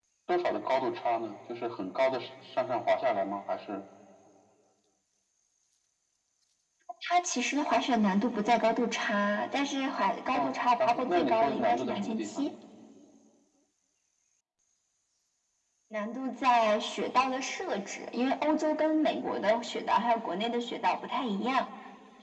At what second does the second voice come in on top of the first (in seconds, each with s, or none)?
10.3 s